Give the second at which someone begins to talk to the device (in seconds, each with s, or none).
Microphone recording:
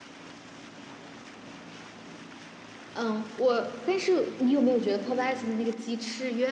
2.9 s